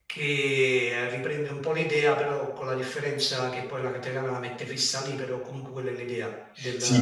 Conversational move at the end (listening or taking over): taking over